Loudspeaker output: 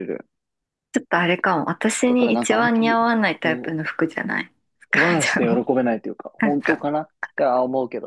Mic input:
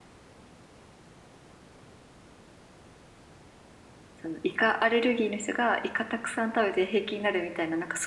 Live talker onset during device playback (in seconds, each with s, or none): 4.2 s